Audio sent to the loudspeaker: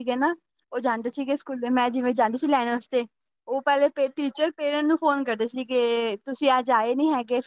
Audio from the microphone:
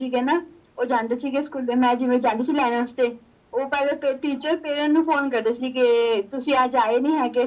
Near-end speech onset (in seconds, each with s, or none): none